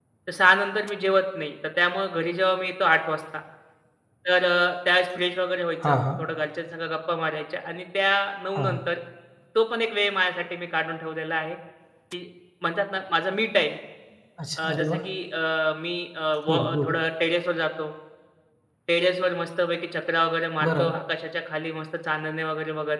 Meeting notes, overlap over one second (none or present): none